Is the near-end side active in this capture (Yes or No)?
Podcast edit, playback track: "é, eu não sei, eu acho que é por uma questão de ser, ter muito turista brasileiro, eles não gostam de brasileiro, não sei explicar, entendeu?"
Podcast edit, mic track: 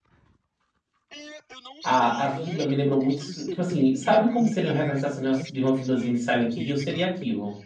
Yes